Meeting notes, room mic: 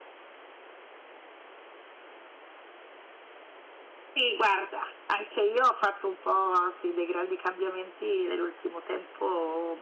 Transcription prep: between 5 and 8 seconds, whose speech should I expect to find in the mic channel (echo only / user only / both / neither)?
user only